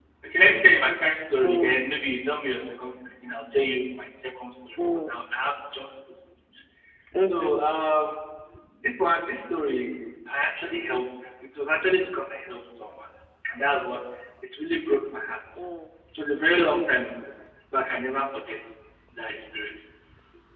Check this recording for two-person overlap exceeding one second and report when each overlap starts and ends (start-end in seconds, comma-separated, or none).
none